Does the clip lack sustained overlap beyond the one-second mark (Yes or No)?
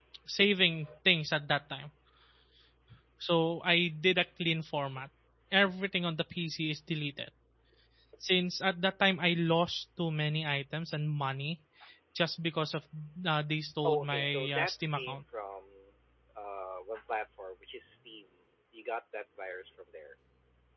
No